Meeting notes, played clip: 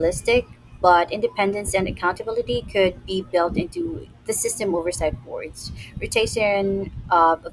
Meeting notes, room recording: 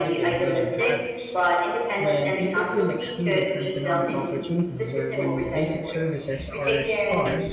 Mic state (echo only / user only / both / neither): both